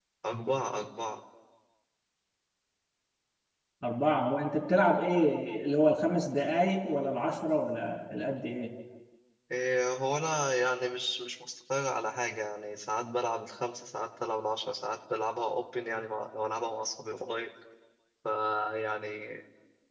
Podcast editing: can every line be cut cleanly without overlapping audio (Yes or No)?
Yes